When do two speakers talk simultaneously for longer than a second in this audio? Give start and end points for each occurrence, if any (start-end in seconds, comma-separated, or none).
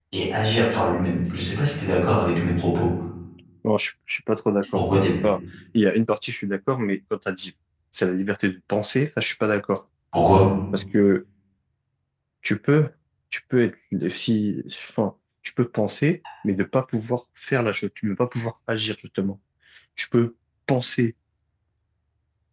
none